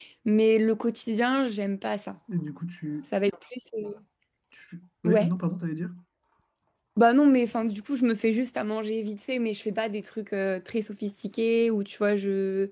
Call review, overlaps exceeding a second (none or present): none